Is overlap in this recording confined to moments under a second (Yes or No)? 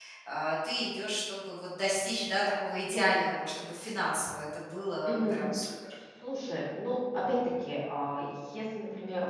Yes